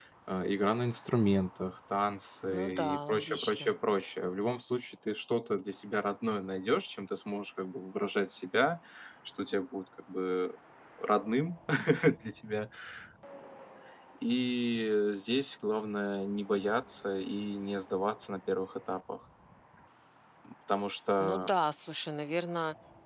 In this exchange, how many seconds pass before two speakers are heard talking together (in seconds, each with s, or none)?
2.5 s